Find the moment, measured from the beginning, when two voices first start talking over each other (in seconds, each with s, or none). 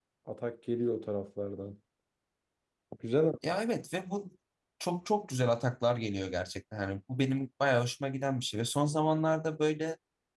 none